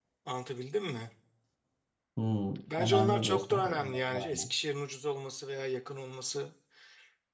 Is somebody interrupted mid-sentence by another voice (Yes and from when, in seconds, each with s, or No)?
Yes, from 2.8 s